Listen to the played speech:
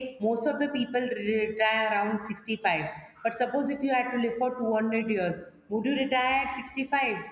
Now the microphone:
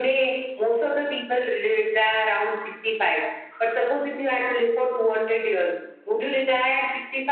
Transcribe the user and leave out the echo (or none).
none